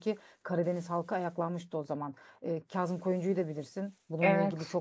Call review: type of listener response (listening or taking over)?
listening